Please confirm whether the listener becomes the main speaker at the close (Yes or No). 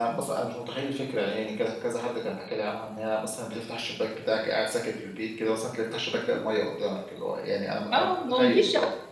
Yes